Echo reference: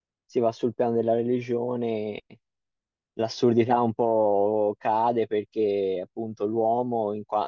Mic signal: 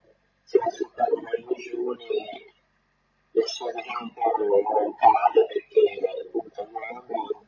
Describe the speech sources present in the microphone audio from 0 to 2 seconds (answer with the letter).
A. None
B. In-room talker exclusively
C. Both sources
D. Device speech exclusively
D